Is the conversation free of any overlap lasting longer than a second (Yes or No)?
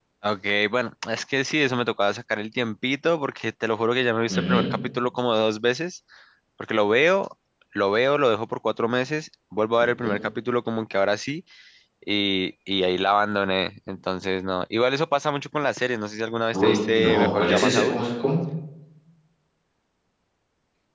No